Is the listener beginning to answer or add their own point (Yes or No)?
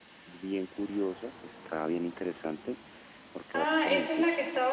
Yes